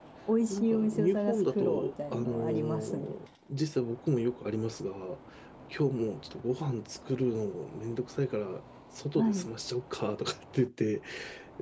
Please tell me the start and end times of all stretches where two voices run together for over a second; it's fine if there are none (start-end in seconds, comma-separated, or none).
0.5-3.2